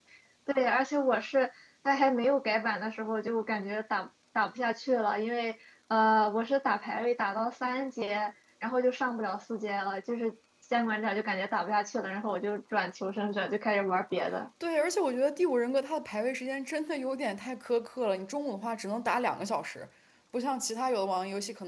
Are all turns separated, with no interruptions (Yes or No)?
Yes